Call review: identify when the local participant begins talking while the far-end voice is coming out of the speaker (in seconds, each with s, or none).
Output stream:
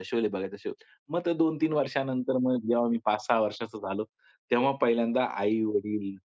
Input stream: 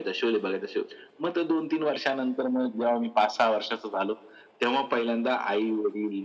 none